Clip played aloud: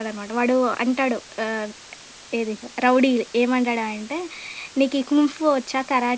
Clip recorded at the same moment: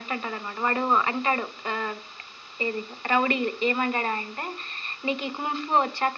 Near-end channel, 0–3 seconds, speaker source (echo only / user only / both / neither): echo only